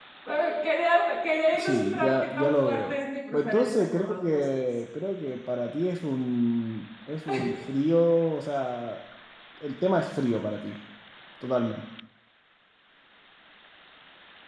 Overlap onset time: 2 s

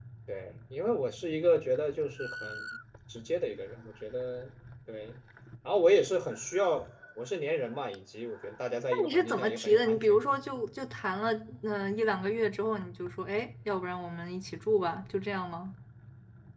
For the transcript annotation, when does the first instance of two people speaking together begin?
9 s

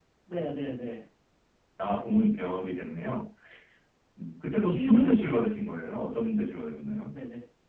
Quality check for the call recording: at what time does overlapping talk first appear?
5 s

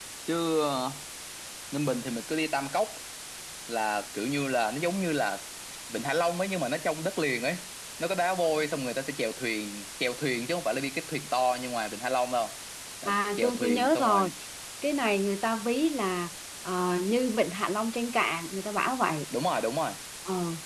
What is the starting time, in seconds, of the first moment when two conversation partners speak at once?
13 s

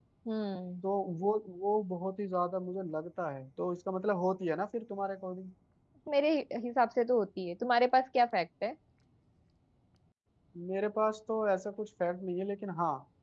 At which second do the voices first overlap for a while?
none

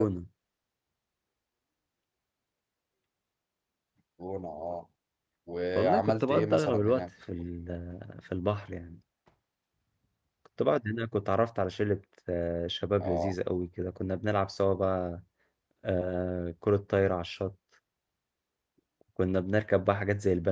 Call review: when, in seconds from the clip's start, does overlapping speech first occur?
6 s

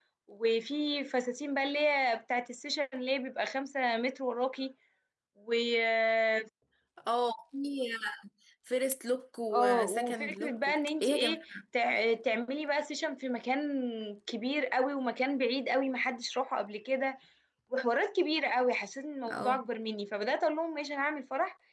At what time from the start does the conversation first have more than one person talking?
10 s

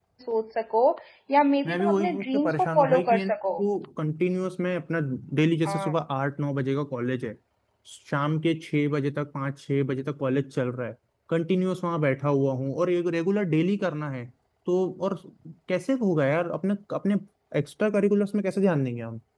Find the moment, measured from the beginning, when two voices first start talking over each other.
2 s

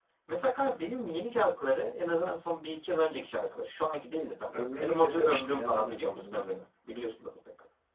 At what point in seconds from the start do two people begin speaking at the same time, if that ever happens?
5 s

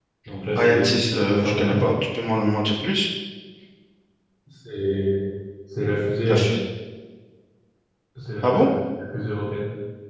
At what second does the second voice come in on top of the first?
1 s

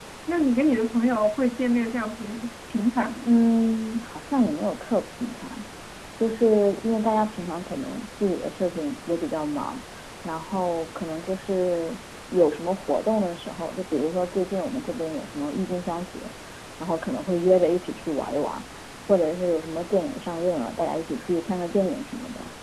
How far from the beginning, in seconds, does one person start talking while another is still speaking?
none

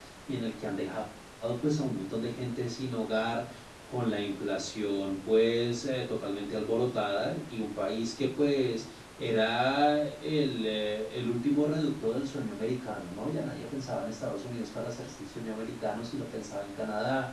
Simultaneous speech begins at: none

